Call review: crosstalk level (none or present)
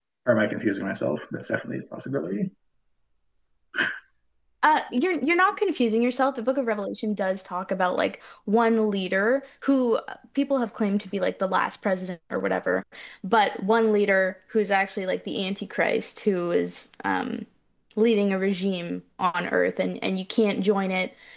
none